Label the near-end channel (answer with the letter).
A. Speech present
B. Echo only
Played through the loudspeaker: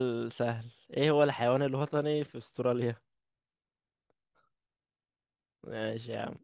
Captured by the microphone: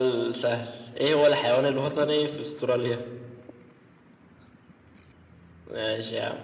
B